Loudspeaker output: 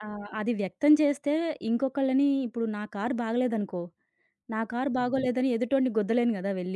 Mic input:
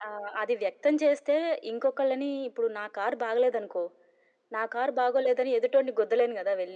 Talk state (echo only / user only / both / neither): echo only